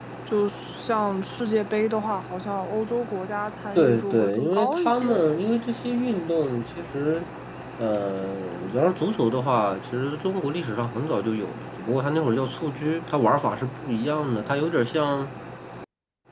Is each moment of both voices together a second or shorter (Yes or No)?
No